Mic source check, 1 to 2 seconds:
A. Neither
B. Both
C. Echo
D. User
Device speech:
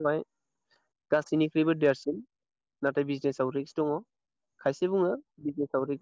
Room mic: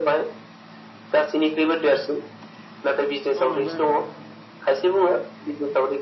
C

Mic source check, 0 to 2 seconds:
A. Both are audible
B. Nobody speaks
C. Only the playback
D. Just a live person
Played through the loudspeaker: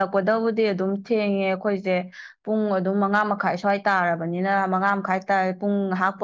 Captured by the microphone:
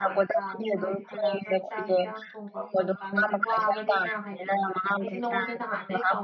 A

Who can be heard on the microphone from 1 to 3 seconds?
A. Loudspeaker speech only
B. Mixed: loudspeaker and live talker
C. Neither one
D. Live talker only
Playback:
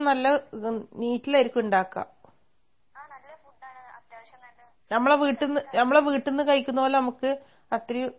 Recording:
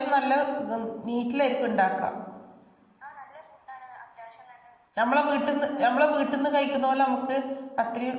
A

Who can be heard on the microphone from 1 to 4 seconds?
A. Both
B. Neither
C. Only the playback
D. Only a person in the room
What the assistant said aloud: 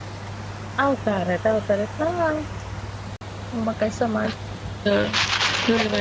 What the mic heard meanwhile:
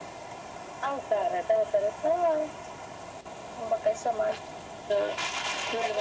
C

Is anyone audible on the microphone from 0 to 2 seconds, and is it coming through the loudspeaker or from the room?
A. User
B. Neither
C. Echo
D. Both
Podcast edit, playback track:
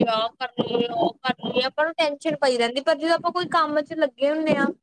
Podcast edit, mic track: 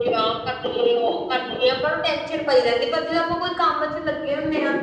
C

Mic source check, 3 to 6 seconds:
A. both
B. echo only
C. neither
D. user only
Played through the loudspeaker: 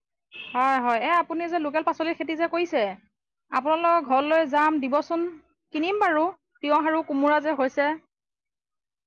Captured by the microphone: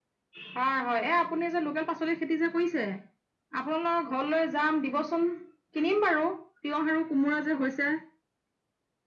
B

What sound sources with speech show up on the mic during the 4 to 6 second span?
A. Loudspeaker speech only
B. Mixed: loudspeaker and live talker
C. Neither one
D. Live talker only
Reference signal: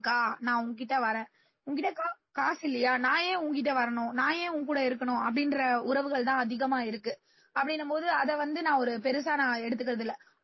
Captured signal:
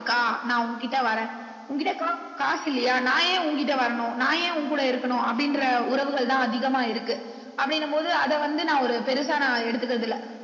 A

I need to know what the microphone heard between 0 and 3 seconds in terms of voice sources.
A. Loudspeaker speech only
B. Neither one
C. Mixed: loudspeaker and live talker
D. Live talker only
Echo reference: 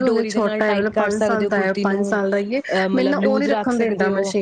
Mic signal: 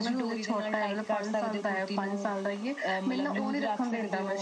A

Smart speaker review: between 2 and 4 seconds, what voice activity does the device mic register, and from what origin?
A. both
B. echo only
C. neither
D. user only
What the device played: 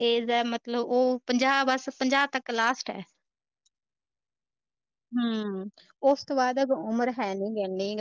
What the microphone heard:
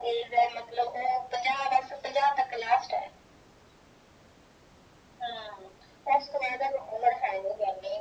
B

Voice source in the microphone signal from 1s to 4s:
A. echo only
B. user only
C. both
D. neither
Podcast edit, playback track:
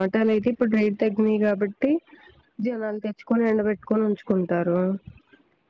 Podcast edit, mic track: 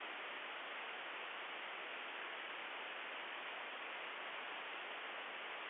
D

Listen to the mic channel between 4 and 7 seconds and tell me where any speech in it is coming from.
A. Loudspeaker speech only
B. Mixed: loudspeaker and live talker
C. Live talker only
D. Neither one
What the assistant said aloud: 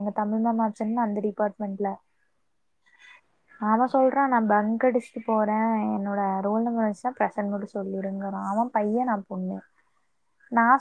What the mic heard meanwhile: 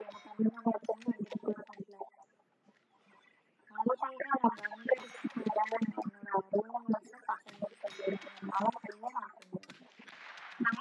A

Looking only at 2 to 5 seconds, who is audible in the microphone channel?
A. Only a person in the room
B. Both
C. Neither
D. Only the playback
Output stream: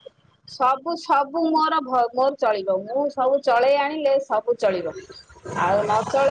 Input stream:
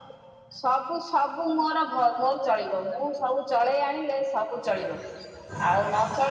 D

